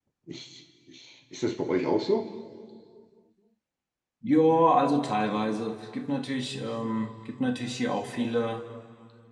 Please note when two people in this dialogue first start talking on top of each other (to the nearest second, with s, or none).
none